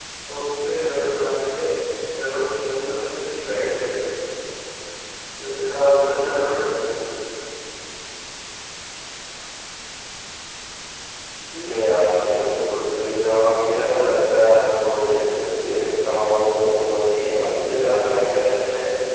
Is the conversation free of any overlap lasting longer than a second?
No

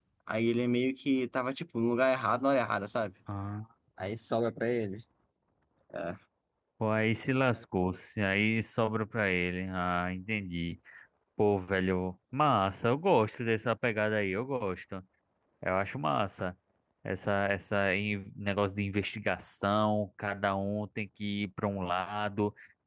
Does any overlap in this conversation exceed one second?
No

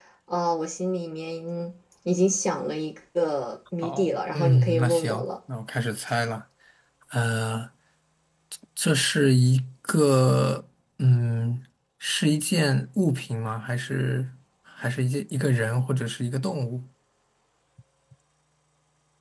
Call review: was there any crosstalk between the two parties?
Yes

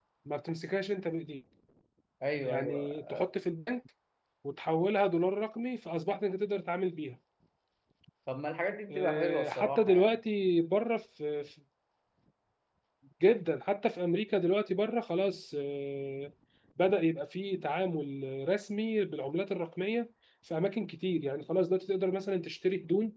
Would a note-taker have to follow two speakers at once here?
Yes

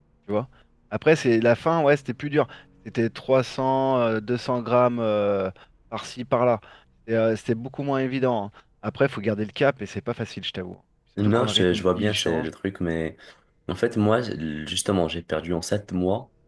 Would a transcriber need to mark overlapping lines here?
Yes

